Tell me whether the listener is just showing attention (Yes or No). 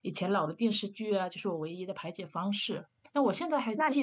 Yes